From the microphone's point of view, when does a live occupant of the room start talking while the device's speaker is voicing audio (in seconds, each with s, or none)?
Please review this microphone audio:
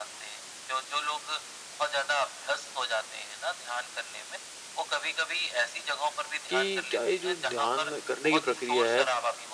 6.5 s